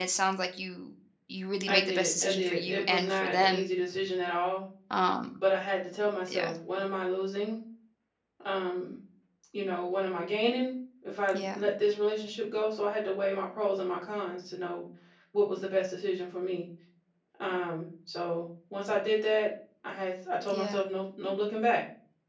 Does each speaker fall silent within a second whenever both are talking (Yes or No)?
No